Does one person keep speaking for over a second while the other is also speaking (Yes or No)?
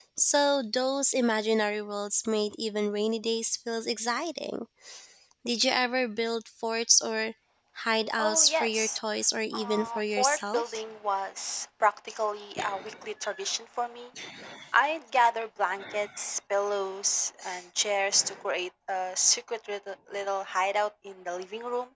Yes